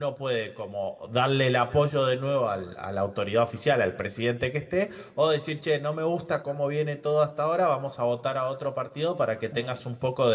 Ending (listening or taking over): listening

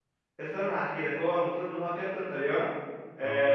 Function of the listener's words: listening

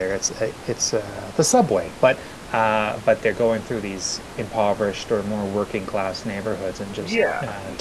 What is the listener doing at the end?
taking over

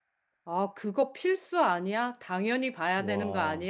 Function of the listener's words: listening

